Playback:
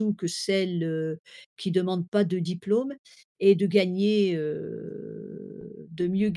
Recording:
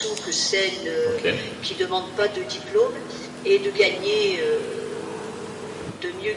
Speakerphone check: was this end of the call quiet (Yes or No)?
No